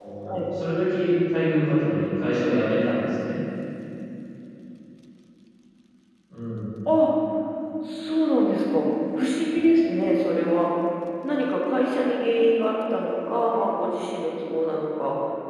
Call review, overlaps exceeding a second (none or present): none